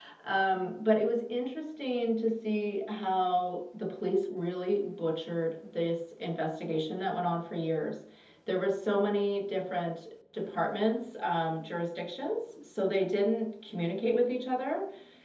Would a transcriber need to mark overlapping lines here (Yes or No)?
No